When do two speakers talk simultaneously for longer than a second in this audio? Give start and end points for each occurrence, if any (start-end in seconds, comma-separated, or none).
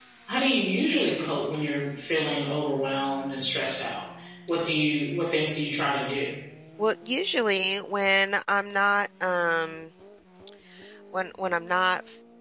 none